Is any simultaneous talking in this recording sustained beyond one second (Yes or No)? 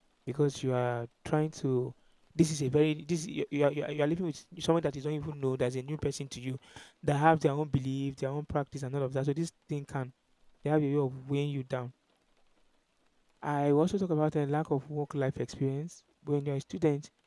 No